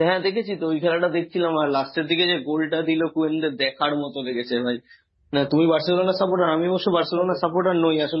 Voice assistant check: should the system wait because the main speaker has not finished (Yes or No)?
Yes